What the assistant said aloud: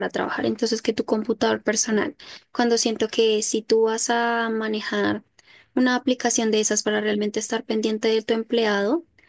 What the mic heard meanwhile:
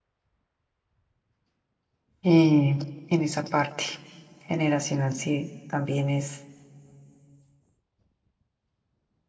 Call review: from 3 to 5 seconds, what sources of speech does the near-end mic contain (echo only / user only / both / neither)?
user only